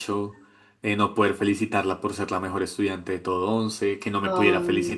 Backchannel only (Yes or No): Yes